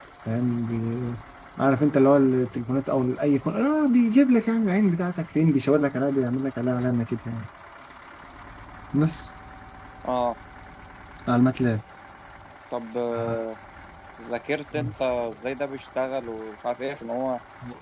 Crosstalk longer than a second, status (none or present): none